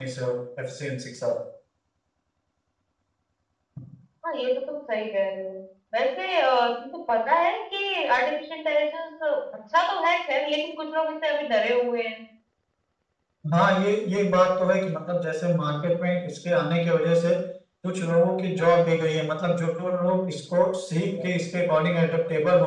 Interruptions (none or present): none